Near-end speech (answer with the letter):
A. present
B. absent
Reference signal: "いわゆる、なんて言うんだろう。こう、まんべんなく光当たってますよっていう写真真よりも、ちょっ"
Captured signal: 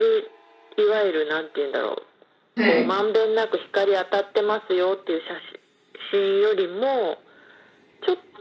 A